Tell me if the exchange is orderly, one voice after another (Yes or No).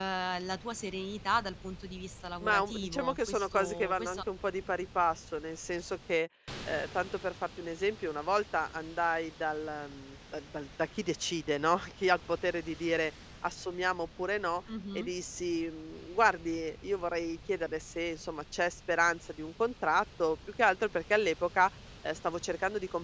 No